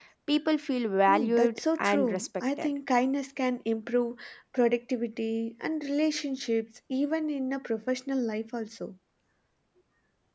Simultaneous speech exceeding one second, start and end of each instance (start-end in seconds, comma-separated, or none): 1.1-2.7